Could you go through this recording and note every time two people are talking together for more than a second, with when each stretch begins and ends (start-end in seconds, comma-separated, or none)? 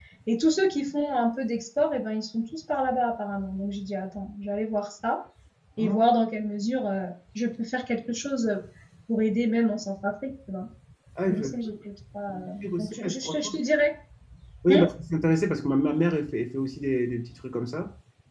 12.3-13.5